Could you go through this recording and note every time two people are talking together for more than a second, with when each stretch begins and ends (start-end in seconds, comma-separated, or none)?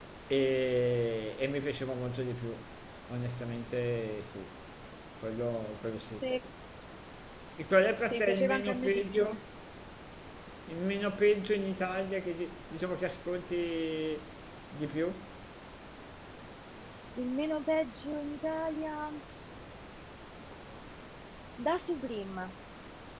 8.1-9.4